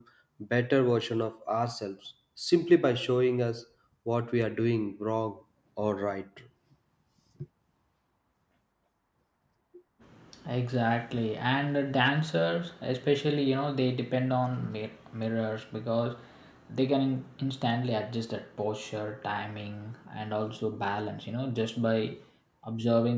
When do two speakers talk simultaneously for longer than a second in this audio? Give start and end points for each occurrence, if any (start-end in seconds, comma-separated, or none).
none